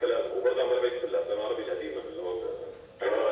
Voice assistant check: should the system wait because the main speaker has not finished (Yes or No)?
No